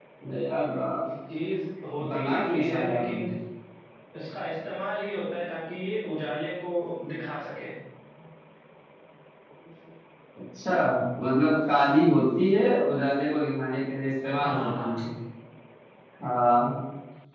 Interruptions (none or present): present